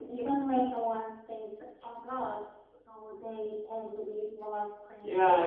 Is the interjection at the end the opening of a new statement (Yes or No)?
Yes